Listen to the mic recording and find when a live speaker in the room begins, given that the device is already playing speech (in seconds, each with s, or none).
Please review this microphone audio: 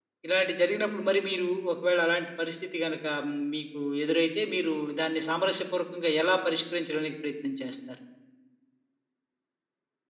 none